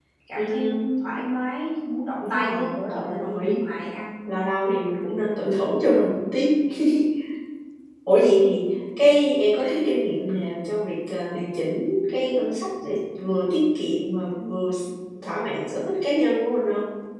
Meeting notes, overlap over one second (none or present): present